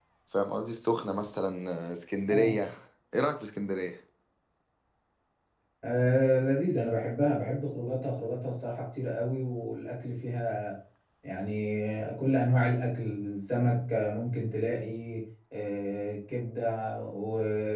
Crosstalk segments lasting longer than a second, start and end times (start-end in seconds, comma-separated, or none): none